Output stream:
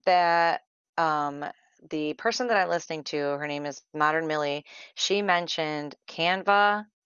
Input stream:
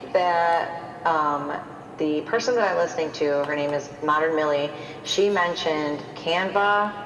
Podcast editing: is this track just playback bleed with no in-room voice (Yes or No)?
Yes